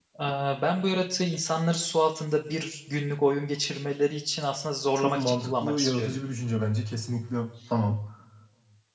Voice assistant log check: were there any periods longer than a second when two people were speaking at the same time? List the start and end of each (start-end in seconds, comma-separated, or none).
5.0-6.2